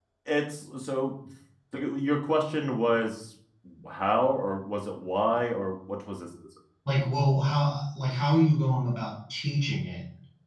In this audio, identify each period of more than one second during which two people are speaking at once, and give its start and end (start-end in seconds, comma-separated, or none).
none